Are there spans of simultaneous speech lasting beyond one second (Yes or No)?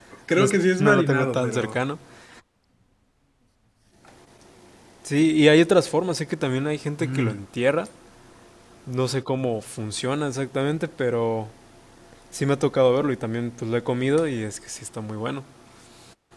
Yes